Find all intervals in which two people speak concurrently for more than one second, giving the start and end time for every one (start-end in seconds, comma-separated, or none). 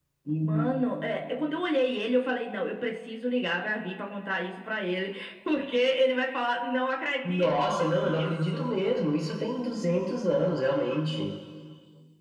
7.2-8.6